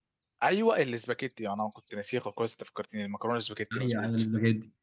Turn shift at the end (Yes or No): Yes